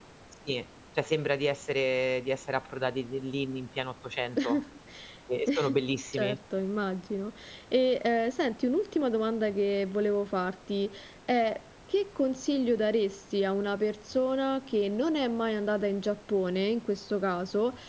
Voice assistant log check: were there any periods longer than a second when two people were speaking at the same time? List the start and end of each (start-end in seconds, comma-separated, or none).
none